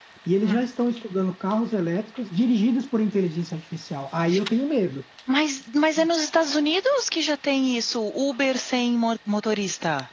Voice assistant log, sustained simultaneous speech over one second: none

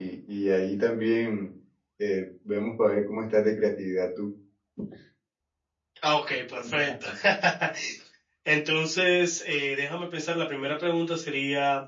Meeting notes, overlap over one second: none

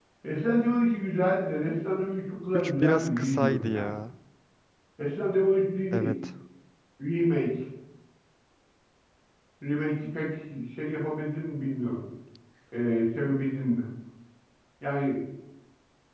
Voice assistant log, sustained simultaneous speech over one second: present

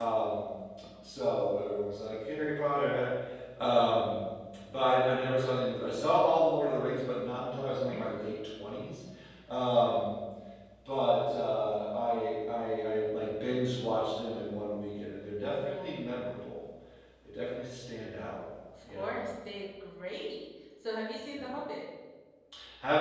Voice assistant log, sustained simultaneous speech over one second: none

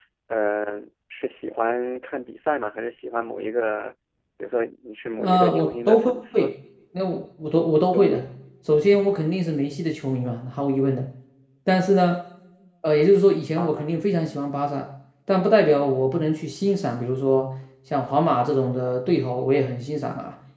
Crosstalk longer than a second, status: present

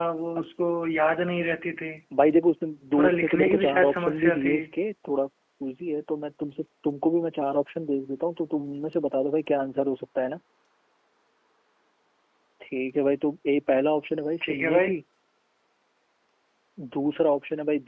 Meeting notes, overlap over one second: present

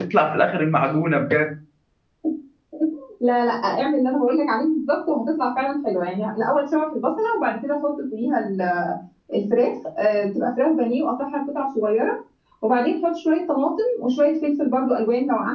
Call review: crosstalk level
none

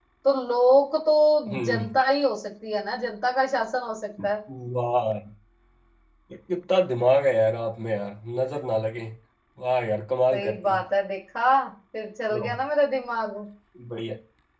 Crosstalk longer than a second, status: none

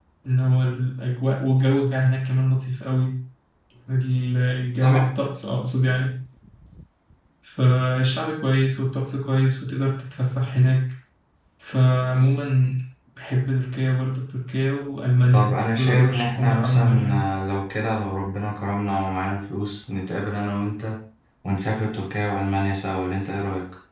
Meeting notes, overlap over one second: present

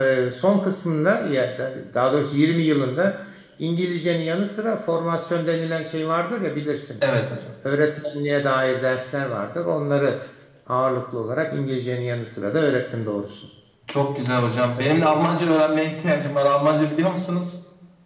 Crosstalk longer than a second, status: none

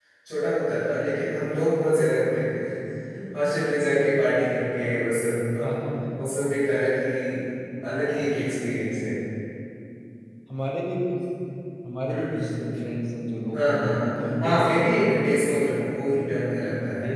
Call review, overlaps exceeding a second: present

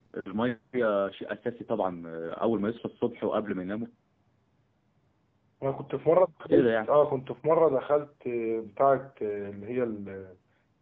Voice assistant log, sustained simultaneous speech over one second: none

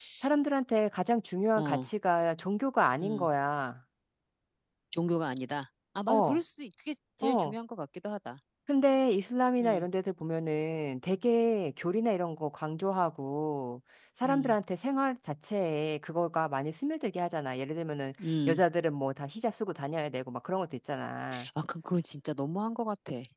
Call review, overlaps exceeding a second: none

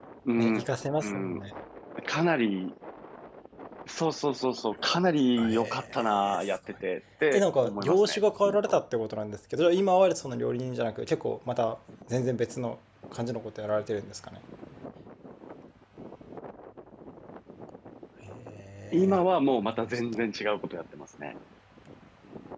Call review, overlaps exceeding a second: present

